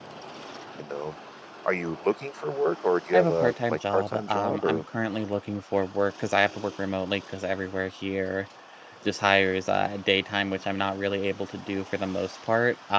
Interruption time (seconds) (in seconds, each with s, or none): 3.1 s